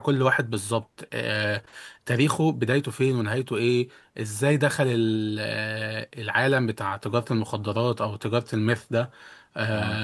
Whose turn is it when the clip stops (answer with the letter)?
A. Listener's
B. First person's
B